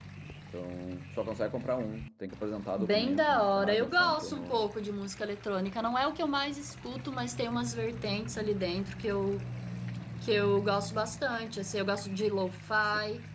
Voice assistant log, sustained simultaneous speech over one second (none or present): present